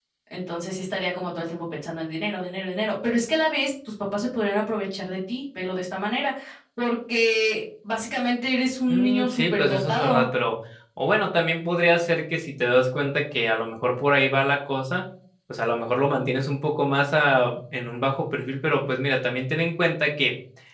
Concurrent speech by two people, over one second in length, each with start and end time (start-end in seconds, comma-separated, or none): 8.9-10.3